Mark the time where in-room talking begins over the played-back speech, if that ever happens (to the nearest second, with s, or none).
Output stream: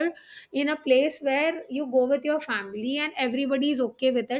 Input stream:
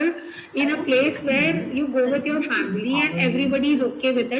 1 s